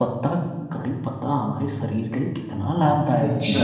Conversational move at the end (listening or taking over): taking over